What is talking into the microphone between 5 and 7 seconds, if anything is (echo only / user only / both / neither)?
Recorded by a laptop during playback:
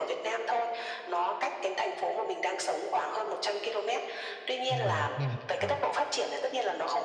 both